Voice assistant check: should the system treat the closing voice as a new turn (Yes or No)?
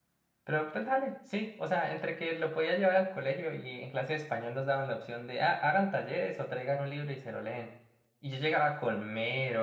No